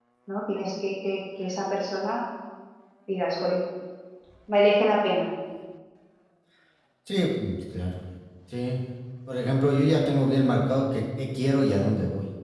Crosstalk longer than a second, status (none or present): none